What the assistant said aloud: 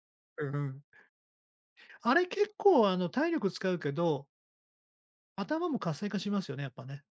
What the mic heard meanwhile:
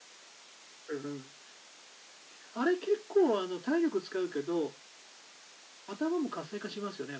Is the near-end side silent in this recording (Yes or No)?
Yes